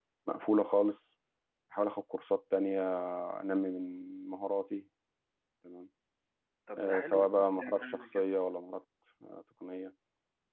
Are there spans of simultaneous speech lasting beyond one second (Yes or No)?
Yes